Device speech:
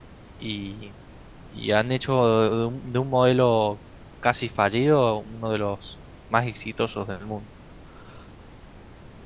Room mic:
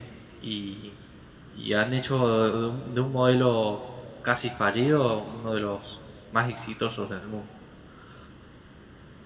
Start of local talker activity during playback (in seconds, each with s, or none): none